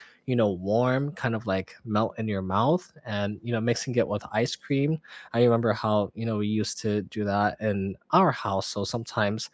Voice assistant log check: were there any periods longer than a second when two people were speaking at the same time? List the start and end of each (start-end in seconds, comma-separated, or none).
none